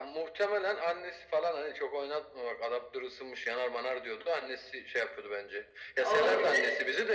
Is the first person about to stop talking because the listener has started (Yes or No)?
No